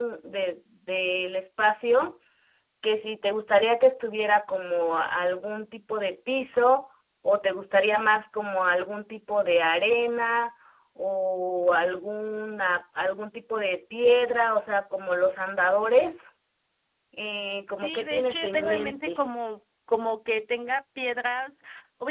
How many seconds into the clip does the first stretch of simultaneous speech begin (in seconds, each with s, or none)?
17.8 s